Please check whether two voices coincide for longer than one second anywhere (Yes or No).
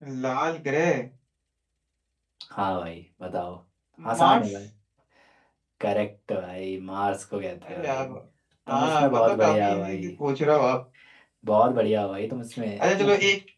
Yes